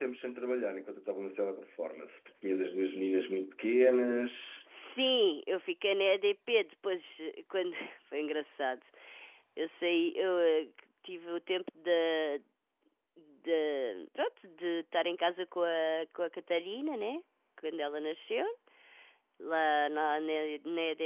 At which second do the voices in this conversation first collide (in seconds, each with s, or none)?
none